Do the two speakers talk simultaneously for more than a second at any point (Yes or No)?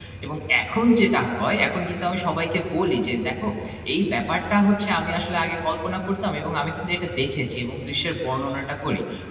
No